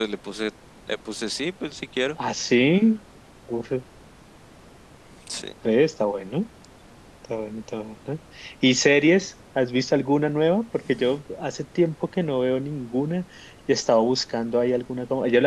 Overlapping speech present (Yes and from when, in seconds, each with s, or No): No